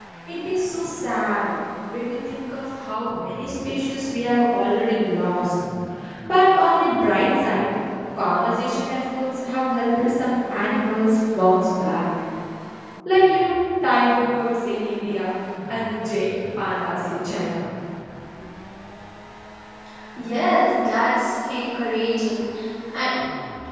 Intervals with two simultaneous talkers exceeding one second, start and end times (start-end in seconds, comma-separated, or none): none